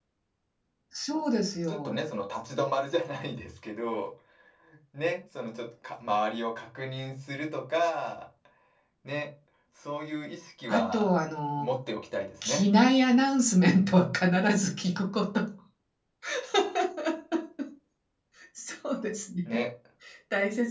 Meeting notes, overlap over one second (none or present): none